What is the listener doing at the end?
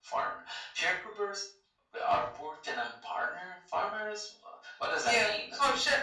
taking over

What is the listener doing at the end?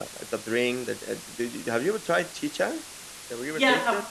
taking over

